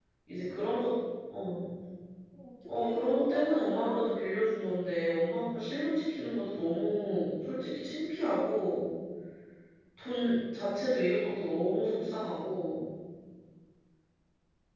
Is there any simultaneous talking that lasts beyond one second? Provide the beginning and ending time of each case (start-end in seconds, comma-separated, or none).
2.8-4.0